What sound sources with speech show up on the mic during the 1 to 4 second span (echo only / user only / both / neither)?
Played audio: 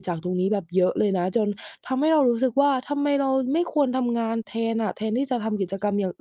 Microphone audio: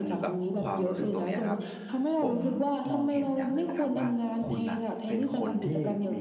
both